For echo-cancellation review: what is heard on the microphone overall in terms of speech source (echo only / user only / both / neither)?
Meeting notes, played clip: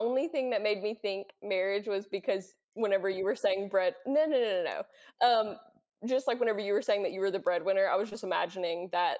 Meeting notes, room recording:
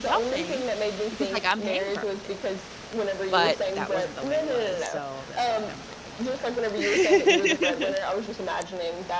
both